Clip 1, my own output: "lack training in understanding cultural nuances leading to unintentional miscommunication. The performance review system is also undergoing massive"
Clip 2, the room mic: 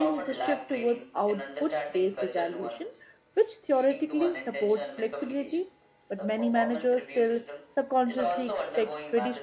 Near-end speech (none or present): present